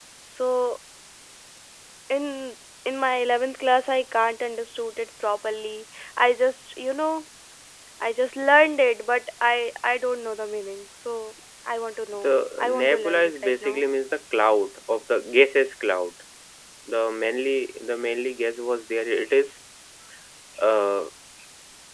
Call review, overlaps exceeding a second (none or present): present